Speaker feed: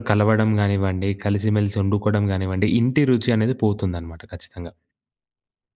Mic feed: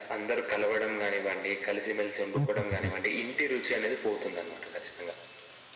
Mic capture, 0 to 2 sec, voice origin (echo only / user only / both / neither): echo only